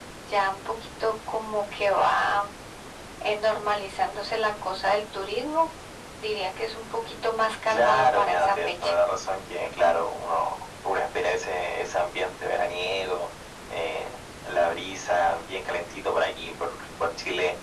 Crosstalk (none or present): present